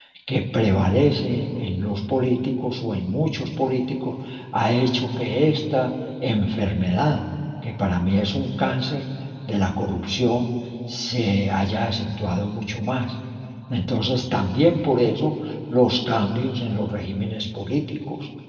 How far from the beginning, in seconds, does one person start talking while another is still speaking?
none

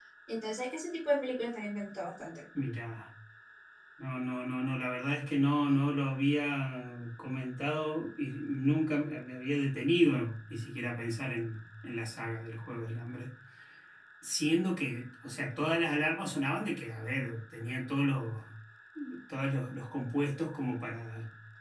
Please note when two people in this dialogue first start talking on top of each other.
none

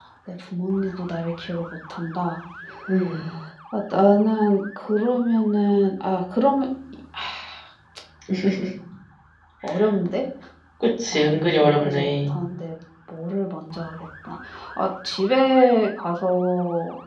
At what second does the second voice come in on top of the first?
11.1 s

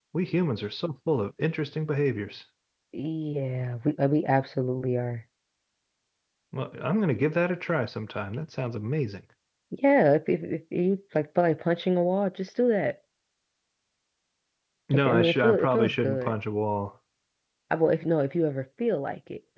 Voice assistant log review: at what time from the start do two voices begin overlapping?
14.9 s

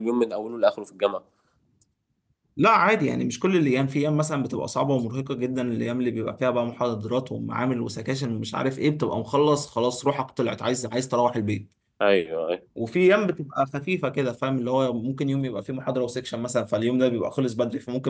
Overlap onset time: none

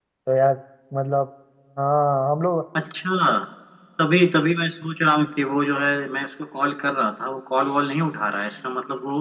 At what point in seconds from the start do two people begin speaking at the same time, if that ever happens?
none

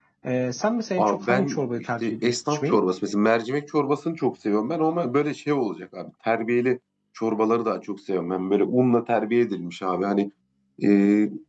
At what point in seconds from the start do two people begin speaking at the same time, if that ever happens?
1.0 s

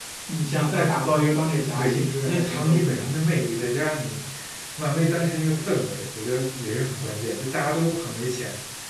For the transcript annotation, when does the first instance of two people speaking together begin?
1.8 s

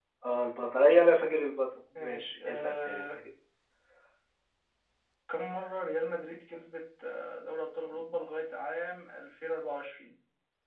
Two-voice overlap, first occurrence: 2.0 s

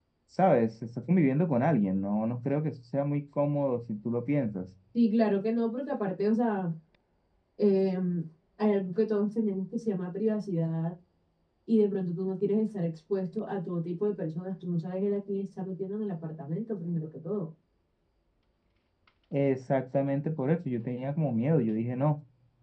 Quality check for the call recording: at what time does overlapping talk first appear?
none

